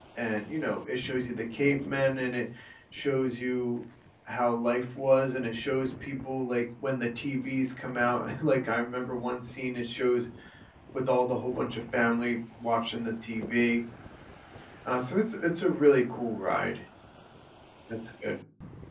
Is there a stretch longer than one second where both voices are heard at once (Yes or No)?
No